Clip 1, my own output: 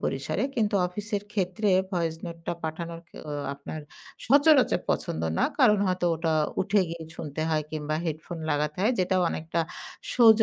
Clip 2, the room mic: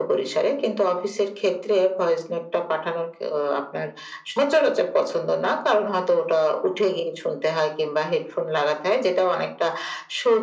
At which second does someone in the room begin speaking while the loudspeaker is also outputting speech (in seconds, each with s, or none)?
none